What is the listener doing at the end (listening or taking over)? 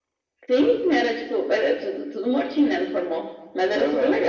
taking over